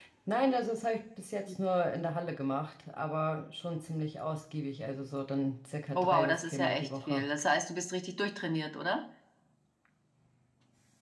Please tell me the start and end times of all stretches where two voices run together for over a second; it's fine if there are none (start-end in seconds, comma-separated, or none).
6.0-7.2